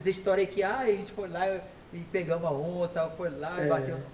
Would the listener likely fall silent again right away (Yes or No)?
Yes